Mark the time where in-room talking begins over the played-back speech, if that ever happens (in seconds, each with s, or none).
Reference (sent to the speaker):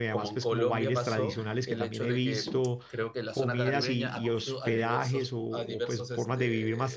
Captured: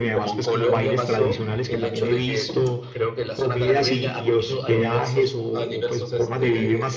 none